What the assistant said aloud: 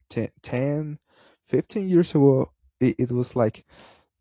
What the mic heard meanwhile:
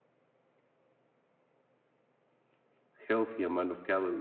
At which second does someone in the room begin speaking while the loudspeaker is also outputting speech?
3.1 s

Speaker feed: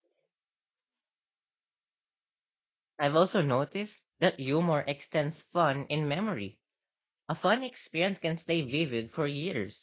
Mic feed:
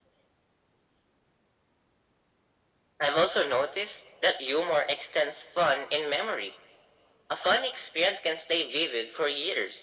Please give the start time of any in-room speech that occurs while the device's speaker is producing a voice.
none

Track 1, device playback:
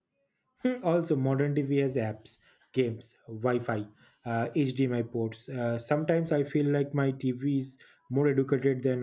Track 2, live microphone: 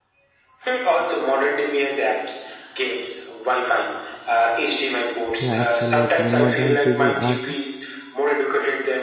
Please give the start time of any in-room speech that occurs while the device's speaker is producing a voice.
5.3 s

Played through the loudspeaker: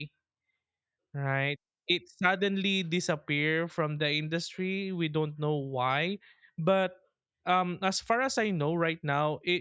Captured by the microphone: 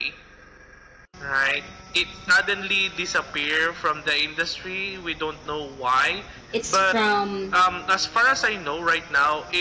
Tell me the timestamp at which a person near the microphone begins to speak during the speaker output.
6.5 s

